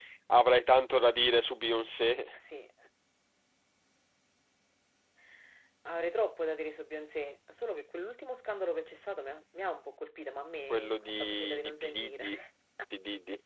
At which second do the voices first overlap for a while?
10.7 s

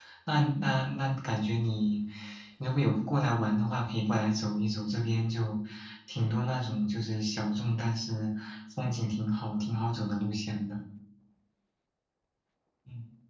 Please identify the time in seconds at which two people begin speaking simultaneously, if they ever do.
none

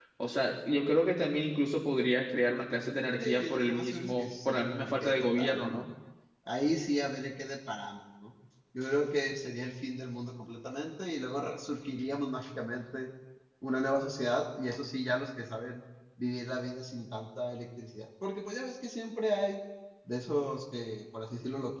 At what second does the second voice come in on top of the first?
3.2 s

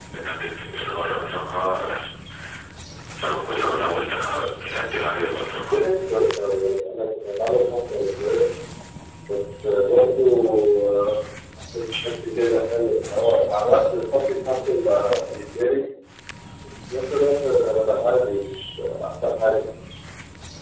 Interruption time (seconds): none

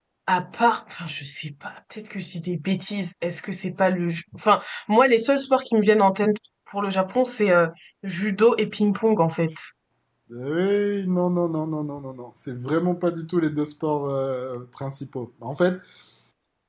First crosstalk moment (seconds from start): none

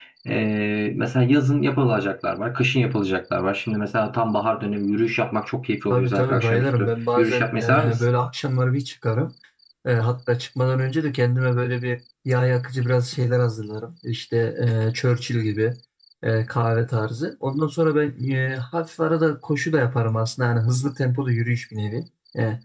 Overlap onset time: 5.9 s

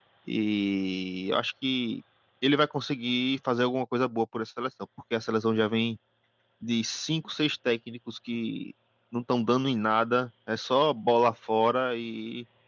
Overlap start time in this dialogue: none

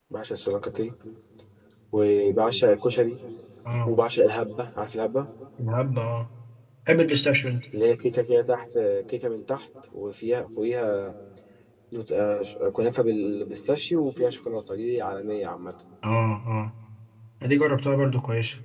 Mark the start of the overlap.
none

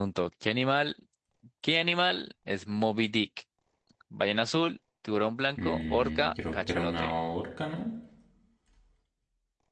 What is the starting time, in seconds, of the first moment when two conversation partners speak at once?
5.6 s

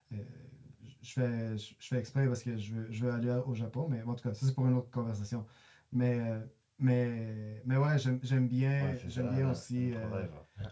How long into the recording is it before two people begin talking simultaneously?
8.8 s

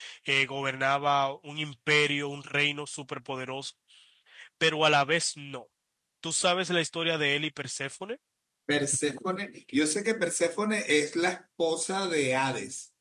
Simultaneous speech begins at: none

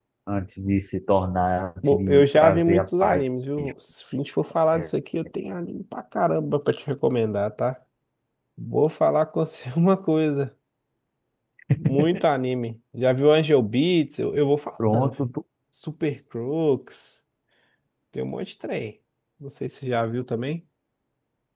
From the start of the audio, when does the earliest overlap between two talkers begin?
1.9 s

